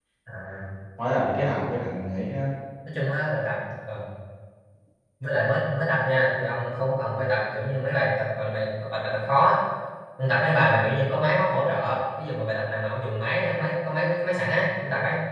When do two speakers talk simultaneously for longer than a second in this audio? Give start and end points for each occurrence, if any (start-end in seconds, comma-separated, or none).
none